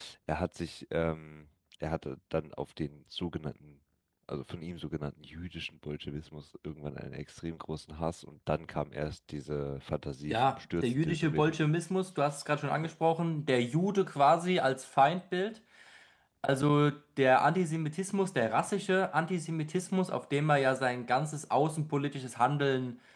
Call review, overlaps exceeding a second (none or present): present